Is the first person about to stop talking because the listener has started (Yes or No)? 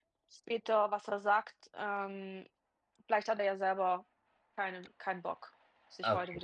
Yes